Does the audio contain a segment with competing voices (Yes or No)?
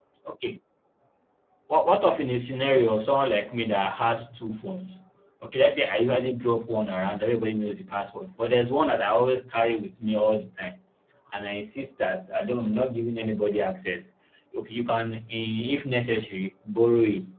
No